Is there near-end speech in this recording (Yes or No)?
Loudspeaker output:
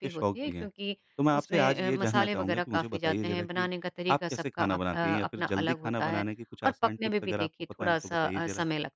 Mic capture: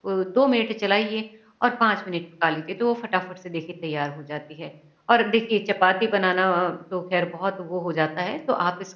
Yes